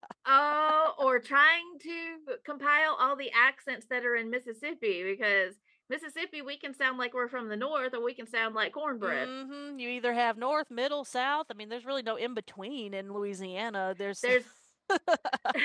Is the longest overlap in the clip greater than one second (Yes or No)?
No